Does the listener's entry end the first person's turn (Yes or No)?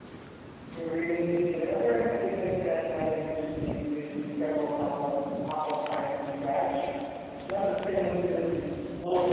Yes